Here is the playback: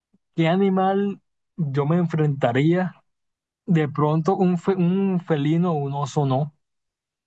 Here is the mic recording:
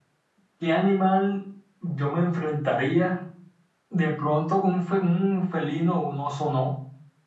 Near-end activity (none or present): none